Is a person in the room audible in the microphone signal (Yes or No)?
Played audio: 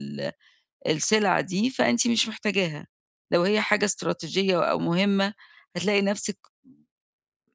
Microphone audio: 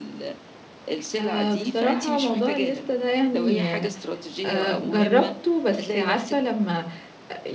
Yes